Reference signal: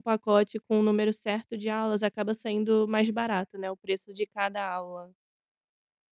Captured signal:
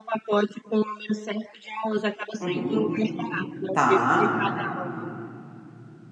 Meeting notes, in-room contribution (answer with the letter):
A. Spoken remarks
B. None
A